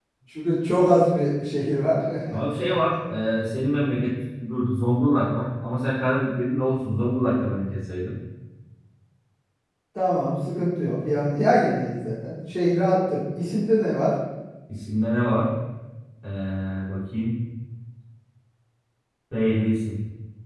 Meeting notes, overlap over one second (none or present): none